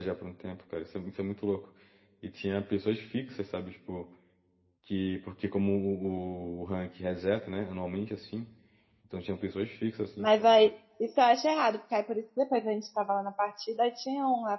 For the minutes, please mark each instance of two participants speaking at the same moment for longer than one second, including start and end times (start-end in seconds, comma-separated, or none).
none